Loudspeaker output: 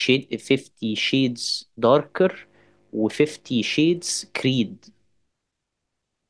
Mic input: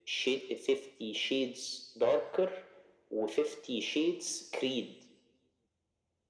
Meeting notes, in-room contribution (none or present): none